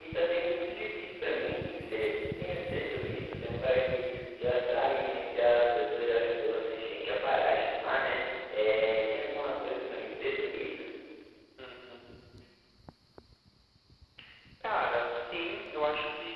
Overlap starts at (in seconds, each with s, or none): none